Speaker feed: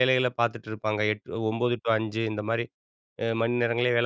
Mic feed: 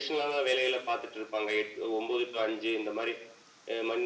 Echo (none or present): present